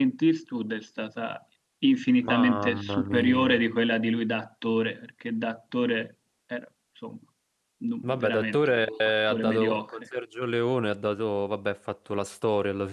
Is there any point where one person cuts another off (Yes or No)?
Yes